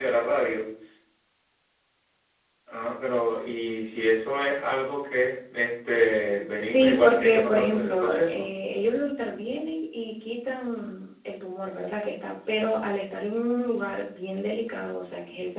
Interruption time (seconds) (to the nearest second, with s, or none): 6 s